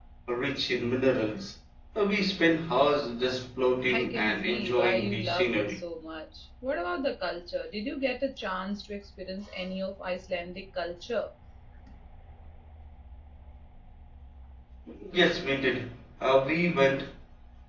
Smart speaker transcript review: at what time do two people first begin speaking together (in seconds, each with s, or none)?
3.8 s